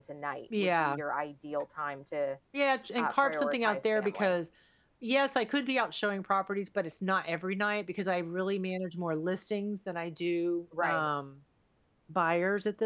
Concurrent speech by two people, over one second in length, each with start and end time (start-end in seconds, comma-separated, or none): 3.0-4.4